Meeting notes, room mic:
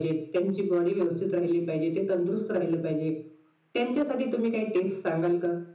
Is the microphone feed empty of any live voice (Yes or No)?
Yes